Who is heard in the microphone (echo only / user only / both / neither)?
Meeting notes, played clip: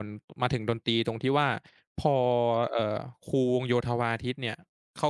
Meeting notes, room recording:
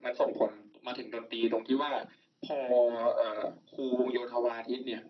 echo only